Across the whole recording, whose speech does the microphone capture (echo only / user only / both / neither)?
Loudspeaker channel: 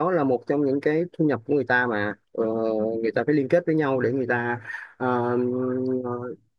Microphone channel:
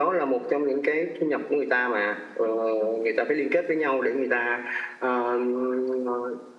echo only